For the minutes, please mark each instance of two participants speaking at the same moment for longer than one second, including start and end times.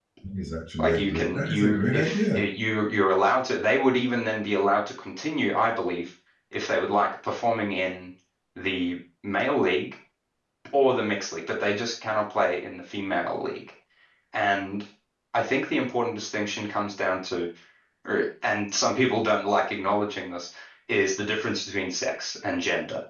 0.8-2.4

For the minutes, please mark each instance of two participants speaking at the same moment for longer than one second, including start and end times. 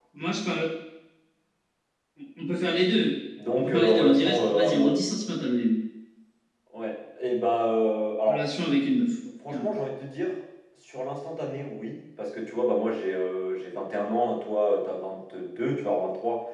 3.5-5.0

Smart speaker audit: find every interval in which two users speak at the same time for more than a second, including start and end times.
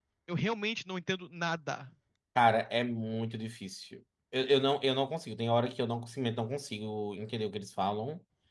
none

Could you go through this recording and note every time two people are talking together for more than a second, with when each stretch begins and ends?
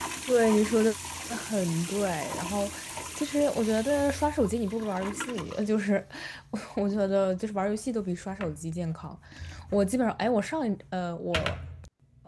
none

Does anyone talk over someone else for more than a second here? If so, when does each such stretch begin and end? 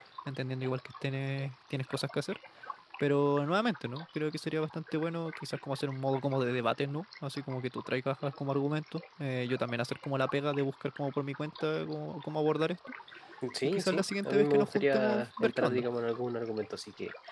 13.6-15.8

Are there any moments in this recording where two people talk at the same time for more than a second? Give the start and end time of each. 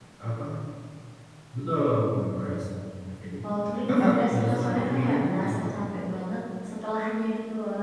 3.9-5.7

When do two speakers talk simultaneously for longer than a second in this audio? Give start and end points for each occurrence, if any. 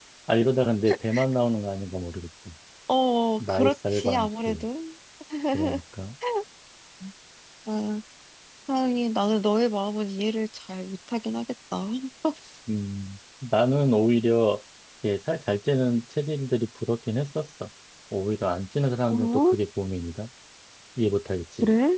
3.4-4.6

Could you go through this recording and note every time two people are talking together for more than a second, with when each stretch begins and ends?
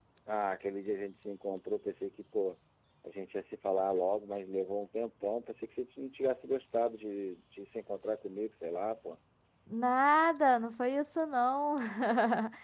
none

